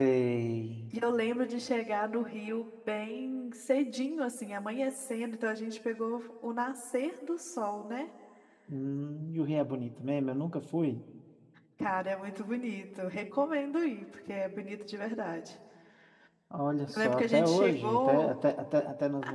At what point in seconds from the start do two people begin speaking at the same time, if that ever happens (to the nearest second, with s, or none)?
17 s